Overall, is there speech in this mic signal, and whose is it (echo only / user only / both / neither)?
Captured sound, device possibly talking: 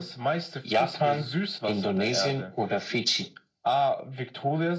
echo only